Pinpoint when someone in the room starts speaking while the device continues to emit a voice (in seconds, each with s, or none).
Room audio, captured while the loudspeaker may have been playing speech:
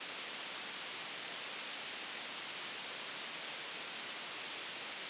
none